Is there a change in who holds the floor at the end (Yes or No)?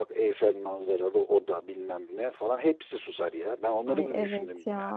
Yes